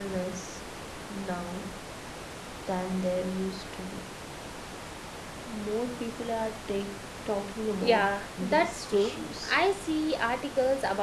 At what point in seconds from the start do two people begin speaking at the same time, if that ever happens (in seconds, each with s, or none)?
7.8 s